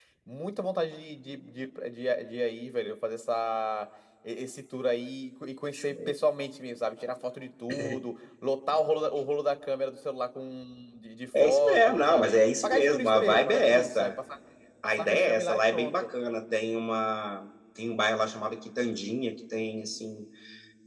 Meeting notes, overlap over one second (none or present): present